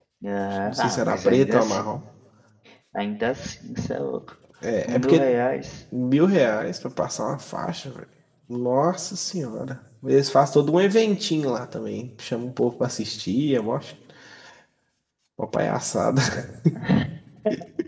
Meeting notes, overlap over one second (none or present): present